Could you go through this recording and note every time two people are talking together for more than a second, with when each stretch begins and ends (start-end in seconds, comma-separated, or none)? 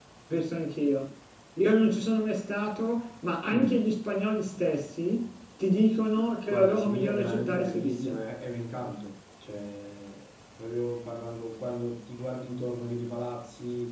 6.5-8.2